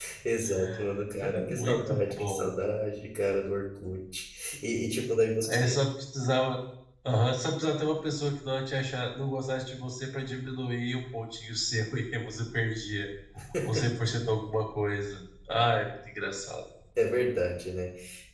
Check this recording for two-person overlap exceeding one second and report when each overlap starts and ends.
1.2-2.5

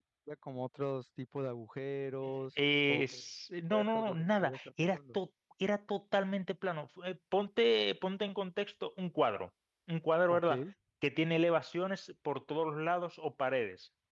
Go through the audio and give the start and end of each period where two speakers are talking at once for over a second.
3.7-5.2

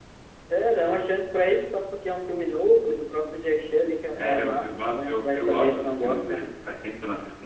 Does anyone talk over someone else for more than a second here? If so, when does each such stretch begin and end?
4.2-6.5

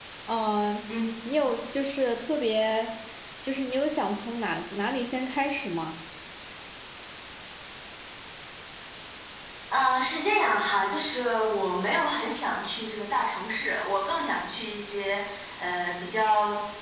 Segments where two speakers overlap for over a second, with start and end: none

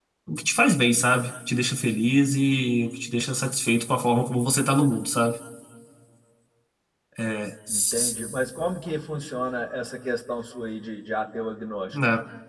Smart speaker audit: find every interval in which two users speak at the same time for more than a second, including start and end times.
none

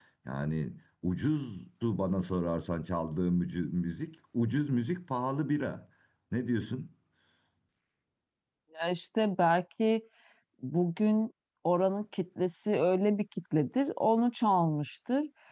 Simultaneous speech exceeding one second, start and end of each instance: none

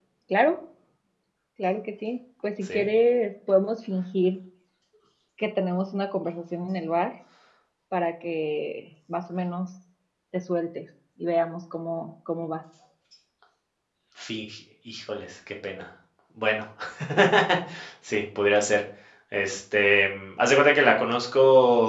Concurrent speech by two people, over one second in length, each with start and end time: none

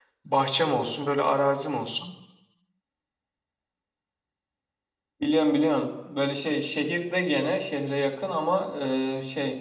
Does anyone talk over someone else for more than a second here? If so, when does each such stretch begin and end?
none

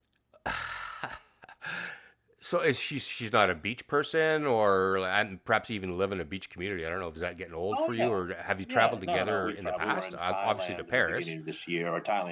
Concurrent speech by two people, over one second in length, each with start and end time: 8.7-11.3

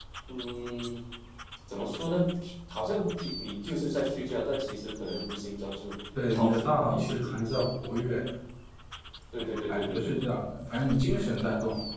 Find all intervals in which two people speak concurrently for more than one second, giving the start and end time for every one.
6.3-7.6

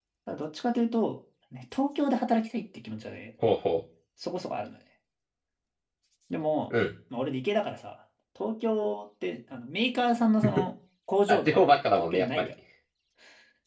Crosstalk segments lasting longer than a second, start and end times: 11.3-12.5

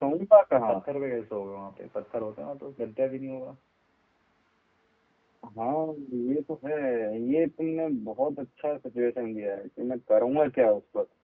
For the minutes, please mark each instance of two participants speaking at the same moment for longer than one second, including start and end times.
none

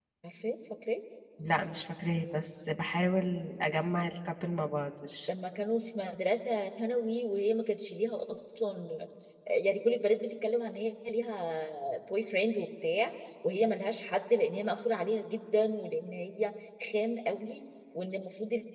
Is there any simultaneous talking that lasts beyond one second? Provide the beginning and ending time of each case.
none

